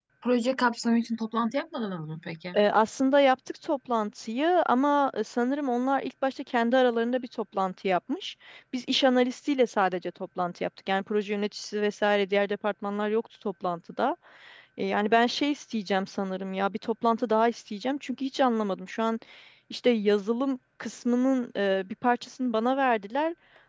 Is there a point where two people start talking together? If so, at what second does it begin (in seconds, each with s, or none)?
none